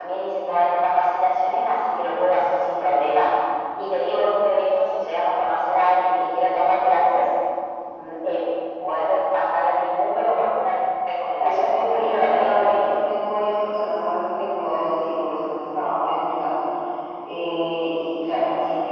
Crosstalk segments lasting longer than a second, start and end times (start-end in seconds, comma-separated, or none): 11.4-13.0